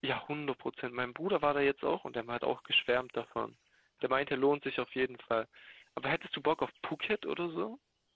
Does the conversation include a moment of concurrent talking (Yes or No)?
No